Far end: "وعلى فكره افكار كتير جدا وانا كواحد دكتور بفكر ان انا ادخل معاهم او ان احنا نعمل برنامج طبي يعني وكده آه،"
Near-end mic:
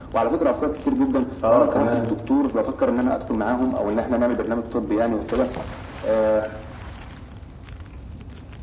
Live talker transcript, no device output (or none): اه تمام